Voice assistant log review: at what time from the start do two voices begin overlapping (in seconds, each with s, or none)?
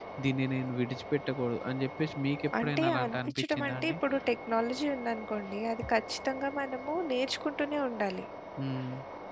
2.5 s